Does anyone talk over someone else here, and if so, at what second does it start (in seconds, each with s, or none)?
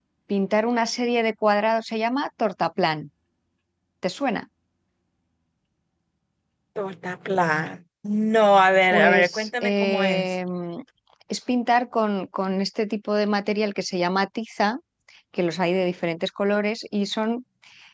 8.9 s